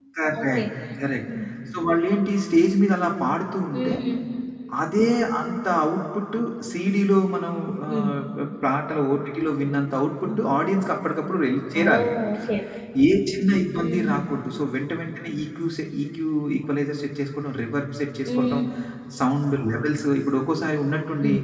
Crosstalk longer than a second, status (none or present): none